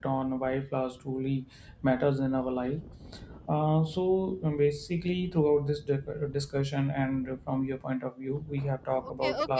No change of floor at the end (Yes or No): No